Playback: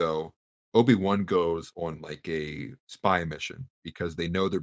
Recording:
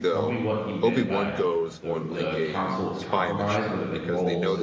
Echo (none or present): present